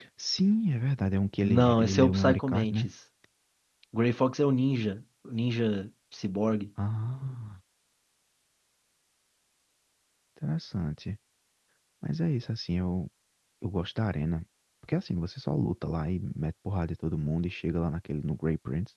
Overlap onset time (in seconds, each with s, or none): 1.4 s